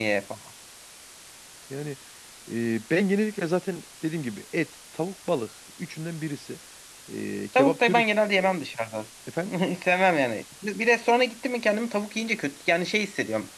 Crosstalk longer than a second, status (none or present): none